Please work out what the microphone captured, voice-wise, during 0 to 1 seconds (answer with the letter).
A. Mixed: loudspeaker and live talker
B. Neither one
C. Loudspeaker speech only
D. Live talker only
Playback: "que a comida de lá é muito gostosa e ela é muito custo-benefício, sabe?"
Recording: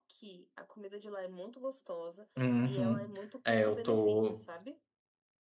C